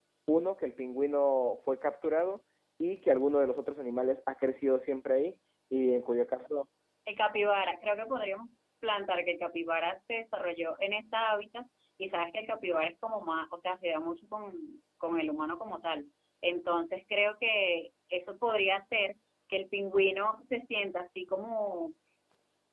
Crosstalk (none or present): none